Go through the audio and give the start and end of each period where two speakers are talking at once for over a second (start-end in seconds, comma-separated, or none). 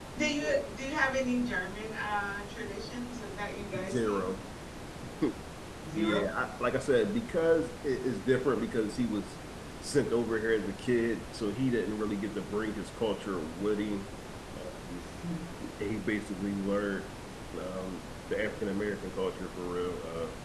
none